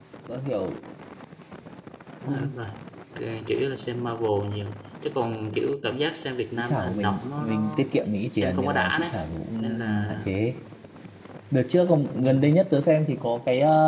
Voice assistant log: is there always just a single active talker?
No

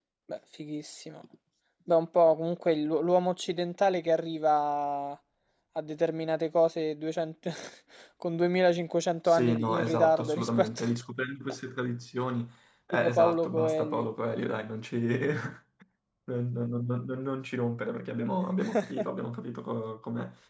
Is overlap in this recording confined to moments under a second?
No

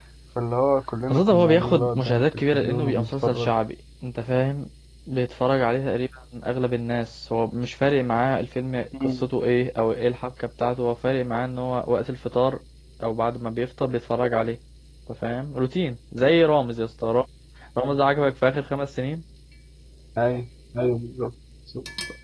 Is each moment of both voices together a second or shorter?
No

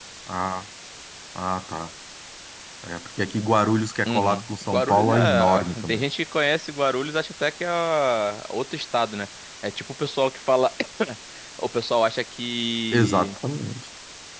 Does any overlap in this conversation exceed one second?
Yes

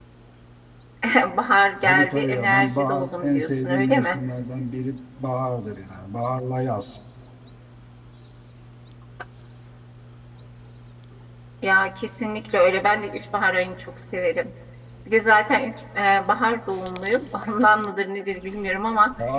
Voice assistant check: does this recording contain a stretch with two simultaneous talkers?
Yes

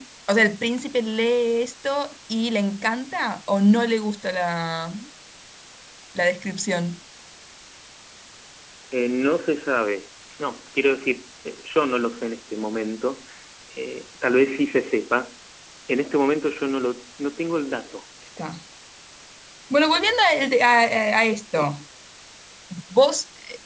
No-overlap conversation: Yes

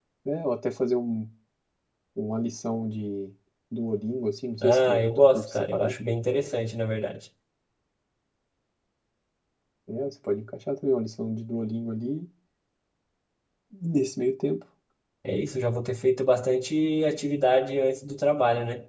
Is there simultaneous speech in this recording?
Yes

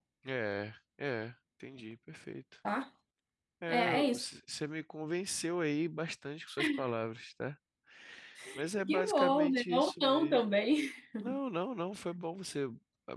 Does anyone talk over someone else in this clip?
Yes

